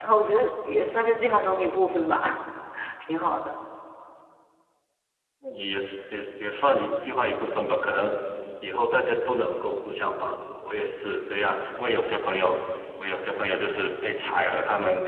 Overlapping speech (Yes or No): No